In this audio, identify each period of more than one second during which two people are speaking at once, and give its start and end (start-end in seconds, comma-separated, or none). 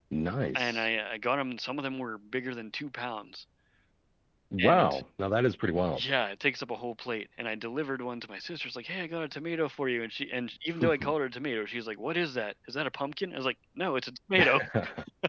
none